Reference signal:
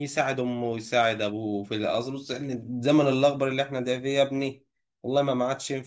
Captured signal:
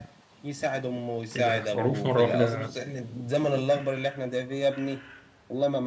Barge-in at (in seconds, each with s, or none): 1.3 s